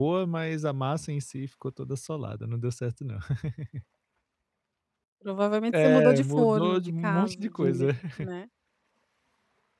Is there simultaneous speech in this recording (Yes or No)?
Yes